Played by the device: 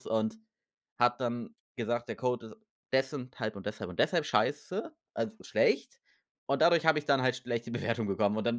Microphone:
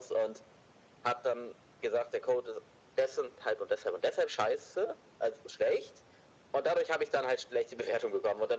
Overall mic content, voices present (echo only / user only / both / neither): echo only